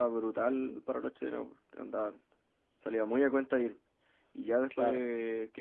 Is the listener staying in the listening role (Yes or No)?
Yes